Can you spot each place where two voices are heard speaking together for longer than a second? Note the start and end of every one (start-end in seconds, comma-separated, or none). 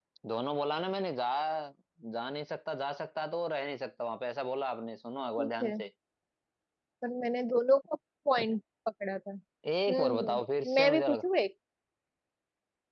9.9-11.2